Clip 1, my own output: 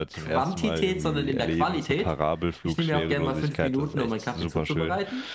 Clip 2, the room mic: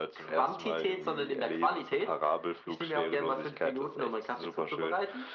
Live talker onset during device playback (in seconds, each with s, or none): none